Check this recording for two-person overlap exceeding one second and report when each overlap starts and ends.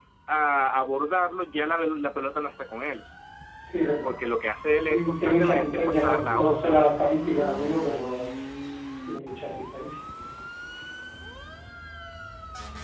4.9-6.8

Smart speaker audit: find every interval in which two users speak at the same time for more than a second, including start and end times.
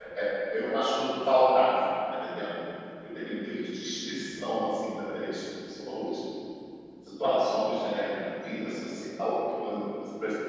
none

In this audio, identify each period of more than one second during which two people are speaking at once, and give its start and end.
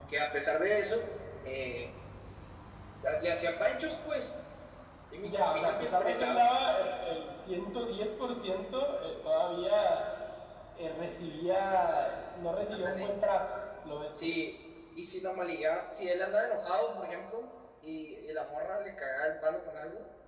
5.2-6.6

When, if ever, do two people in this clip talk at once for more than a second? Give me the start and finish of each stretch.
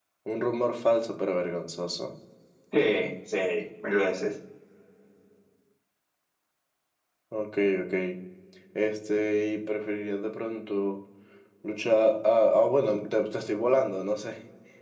none

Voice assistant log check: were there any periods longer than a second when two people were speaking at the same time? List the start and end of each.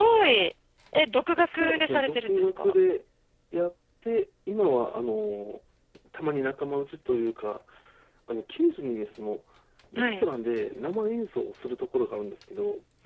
1.4-2.7

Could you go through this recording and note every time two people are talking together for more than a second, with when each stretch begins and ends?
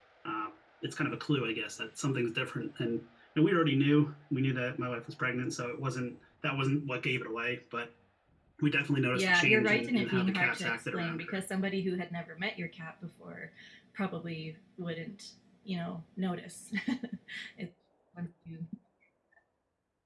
9.1-11.4

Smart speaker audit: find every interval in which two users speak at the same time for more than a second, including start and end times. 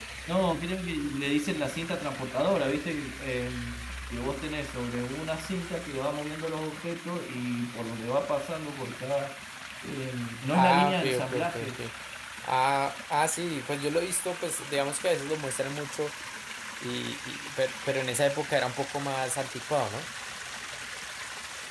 10.5-11.8

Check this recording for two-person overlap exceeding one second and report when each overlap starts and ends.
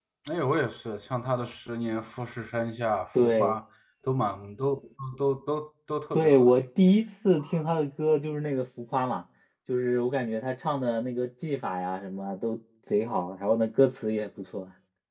none

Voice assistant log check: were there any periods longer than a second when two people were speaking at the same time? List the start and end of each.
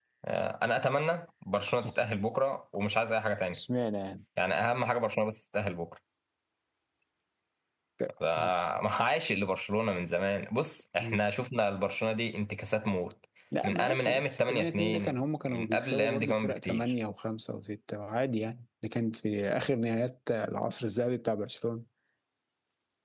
13.6-16.9

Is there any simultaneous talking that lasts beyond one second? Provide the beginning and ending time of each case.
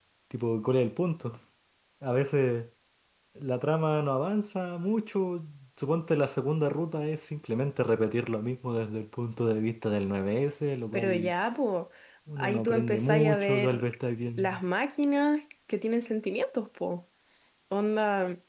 12.4-13.8

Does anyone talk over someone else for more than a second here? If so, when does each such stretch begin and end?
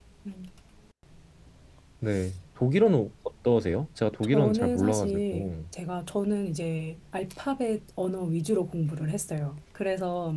4.2-5.5

